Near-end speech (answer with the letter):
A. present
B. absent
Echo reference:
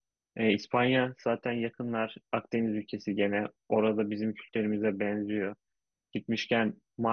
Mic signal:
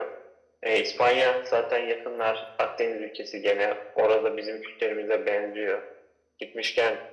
B